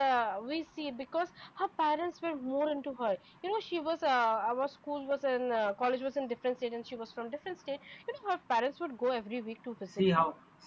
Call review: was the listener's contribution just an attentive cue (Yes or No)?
No